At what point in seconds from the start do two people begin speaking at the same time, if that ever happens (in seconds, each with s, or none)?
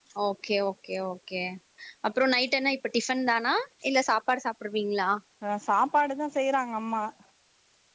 none